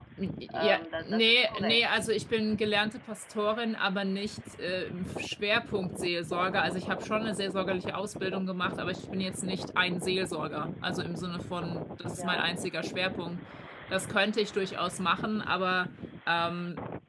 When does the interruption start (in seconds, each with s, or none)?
0.5 s